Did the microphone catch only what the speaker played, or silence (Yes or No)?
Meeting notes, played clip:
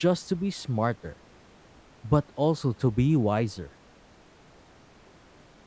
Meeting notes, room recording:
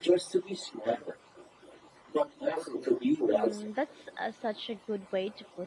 No